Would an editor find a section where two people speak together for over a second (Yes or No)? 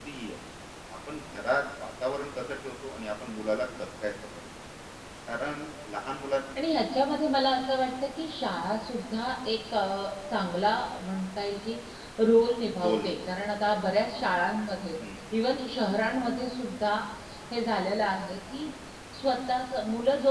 No